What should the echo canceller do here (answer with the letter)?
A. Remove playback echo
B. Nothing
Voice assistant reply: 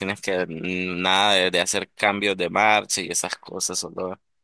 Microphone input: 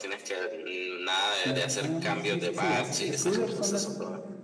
A